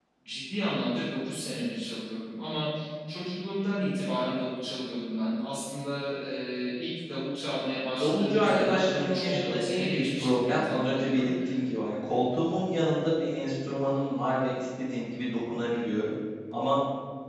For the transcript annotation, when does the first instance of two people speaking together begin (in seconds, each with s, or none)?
8.0 s